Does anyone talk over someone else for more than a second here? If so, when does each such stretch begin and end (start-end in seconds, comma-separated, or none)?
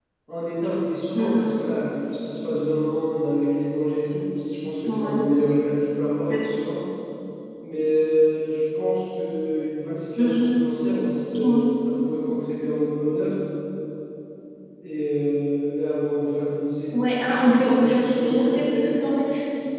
16.9-18.9